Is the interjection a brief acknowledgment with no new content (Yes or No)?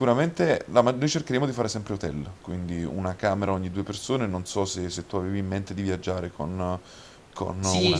No